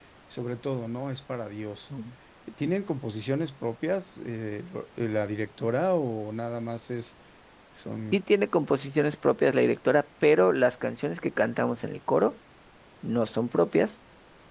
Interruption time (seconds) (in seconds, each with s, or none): none